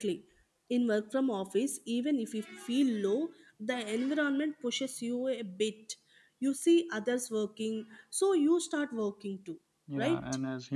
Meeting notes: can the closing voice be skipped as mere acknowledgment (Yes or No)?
No